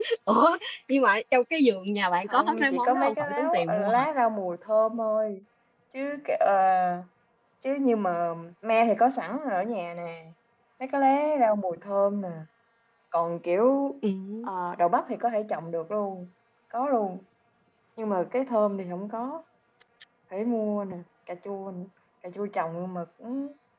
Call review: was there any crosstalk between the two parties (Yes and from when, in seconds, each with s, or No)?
Yes, from 2.3 s